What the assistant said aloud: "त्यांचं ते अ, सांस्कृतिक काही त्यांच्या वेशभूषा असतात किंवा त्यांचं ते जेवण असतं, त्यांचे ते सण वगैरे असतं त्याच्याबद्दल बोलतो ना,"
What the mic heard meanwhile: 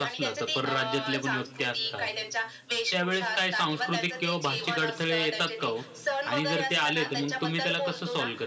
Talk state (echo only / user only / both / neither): both